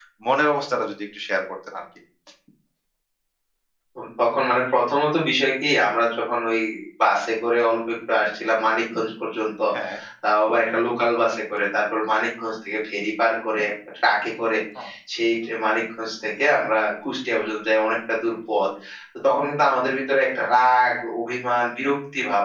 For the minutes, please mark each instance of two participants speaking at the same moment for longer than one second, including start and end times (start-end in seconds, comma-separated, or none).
none